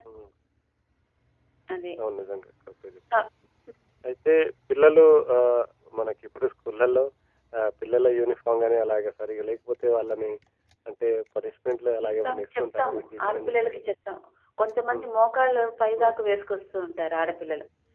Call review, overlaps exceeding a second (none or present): present